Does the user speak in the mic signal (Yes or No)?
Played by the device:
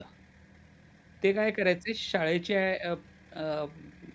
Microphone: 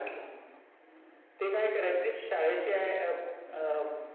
No